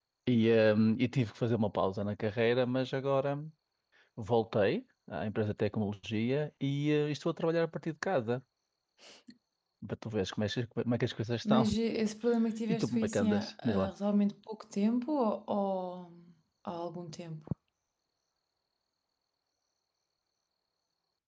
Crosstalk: present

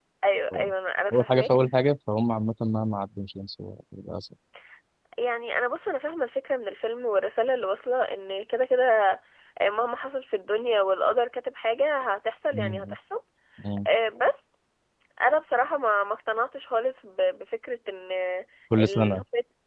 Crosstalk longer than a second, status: none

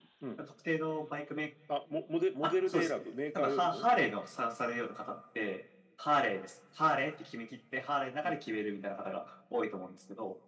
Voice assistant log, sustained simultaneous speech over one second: none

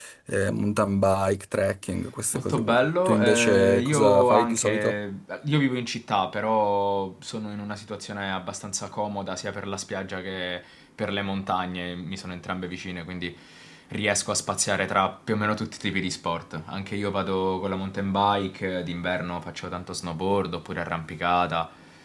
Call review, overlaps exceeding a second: present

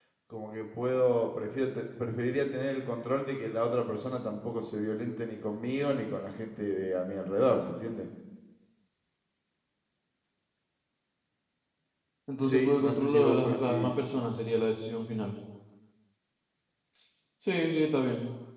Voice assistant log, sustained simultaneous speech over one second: present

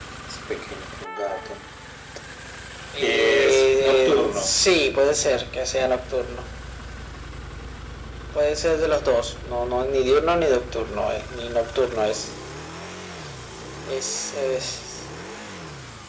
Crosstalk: present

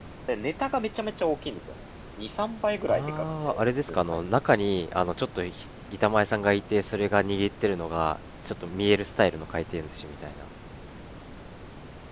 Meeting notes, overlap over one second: present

